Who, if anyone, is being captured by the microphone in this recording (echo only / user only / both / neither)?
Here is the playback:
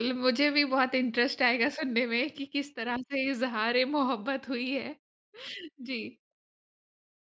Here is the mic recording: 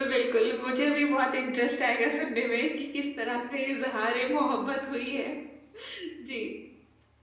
echo only